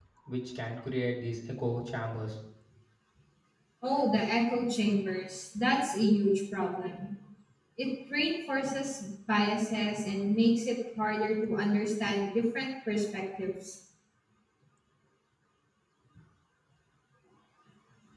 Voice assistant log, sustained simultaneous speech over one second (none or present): none